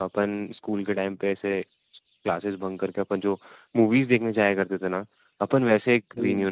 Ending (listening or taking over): listening